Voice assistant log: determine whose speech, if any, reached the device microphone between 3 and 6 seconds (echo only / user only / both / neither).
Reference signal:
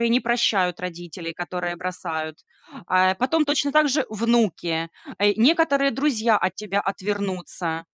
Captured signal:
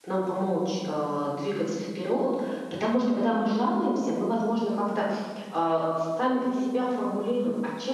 user only